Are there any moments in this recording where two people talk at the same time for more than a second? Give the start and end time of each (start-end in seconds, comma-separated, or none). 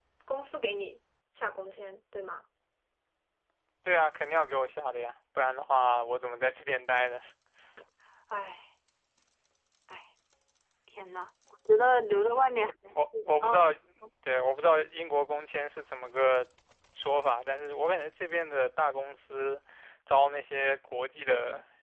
none